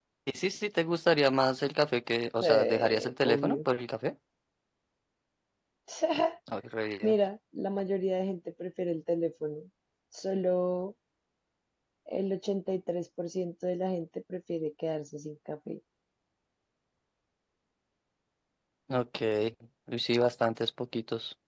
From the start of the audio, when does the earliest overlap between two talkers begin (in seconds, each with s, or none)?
2.4 s